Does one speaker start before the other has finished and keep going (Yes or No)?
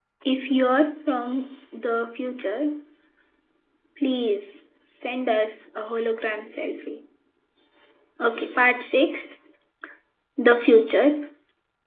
No